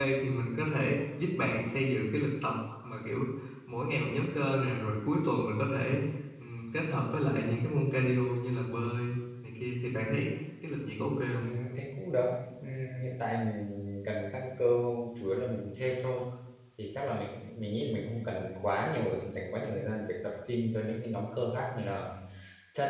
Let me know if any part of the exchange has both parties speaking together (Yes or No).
No